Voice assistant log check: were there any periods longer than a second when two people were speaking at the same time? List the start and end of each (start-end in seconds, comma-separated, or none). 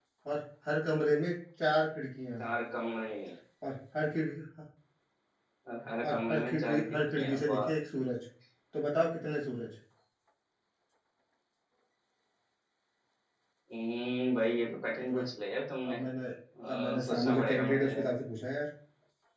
6.1-7.6, 16.7-17.9